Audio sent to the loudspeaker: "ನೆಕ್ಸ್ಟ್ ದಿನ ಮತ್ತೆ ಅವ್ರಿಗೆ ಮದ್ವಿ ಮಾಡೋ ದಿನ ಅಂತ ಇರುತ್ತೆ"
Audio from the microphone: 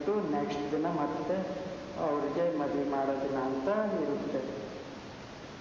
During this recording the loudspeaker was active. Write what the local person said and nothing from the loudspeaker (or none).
none